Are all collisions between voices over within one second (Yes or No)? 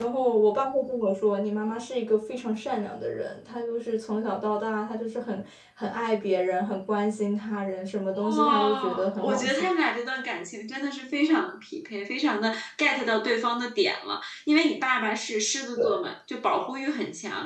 No